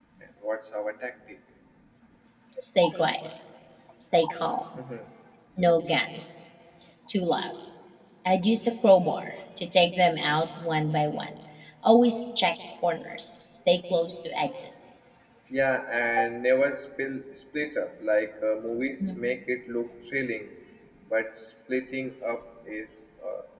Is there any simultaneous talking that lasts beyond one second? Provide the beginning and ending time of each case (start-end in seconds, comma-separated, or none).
none